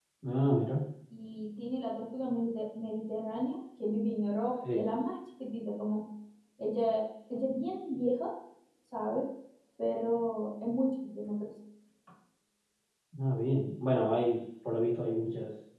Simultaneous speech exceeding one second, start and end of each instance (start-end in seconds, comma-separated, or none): none